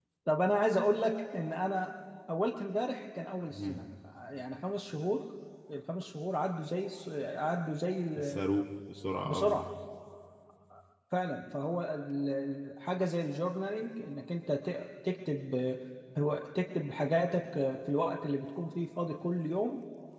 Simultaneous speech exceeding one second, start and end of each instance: none

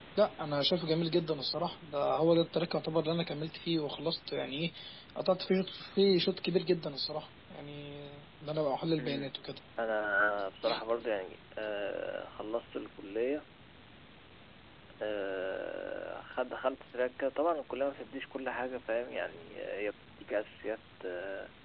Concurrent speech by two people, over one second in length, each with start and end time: none

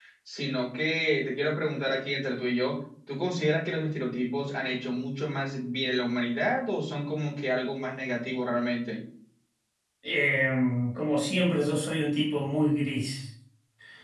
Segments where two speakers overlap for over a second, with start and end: none

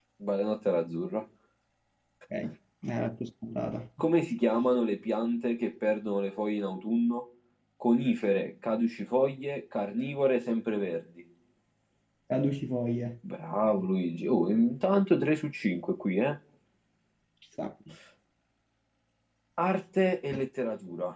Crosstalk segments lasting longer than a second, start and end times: none

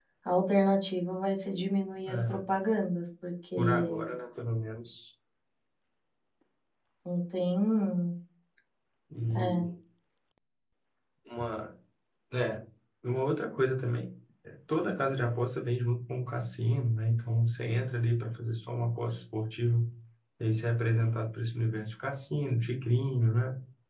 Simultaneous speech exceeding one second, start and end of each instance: none

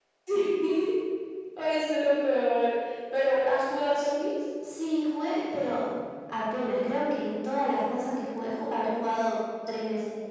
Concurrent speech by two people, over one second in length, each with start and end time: none

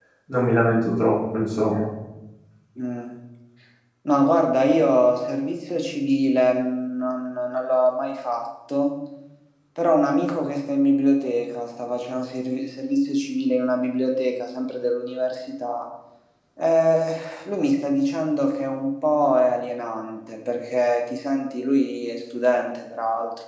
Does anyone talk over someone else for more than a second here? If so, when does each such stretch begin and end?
none

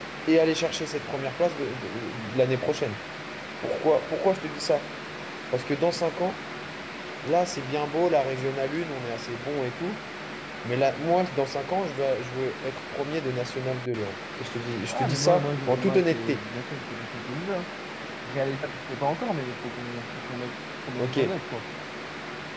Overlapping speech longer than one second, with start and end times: 14.9-16.4

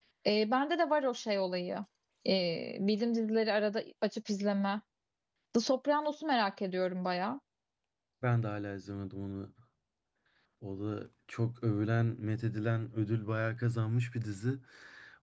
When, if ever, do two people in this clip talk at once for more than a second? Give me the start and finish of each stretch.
none

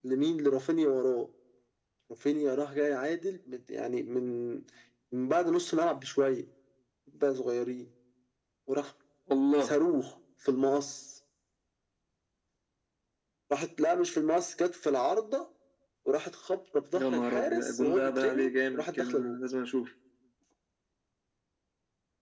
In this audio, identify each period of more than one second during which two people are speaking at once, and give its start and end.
17.0-19.4

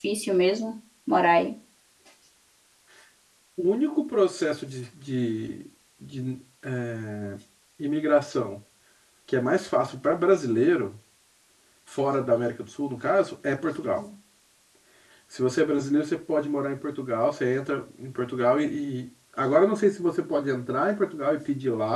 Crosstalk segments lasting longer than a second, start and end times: none

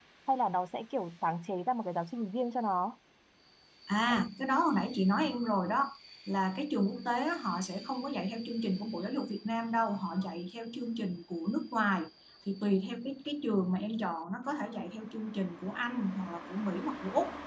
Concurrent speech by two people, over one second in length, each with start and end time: none

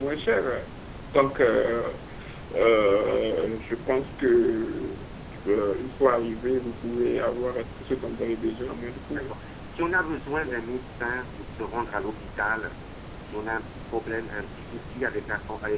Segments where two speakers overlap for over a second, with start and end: none

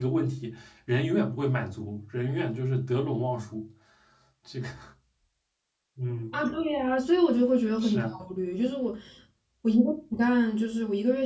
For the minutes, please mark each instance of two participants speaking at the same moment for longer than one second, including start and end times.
none

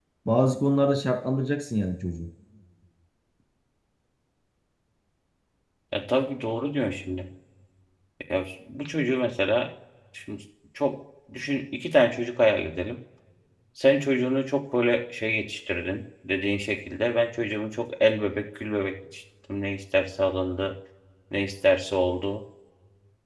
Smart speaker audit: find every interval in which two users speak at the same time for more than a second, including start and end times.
none

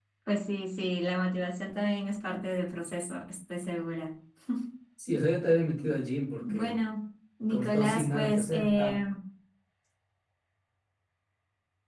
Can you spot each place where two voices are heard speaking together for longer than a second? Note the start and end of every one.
7.5-9.0

